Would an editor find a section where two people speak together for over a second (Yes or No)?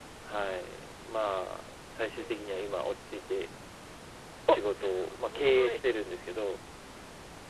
Yes